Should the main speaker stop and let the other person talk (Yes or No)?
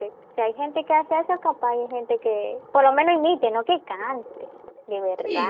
Yes